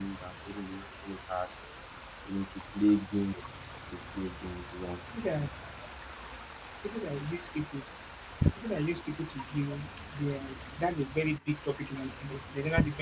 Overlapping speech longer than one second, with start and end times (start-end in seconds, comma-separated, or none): none